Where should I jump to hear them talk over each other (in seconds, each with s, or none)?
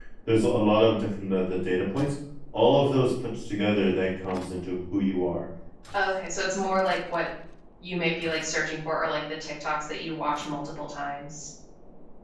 none